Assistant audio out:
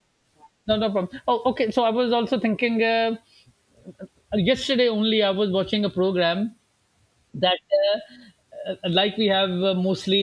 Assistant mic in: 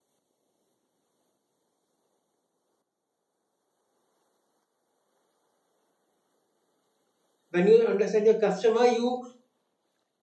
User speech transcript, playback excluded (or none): When you understand your customer, you,